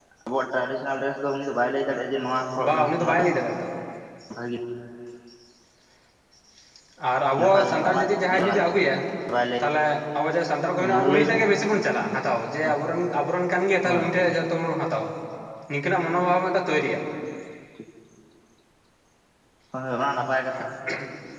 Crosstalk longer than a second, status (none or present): present